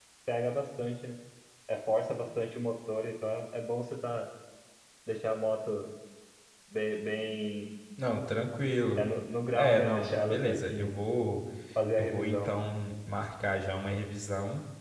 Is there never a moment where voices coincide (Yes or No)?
No